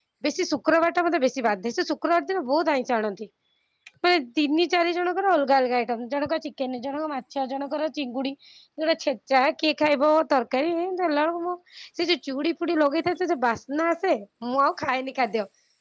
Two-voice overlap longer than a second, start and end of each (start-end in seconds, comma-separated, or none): none